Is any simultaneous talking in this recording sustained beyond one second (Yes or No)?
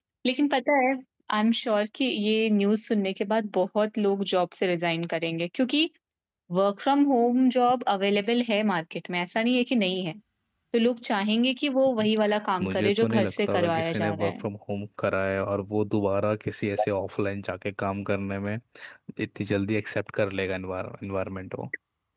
Yes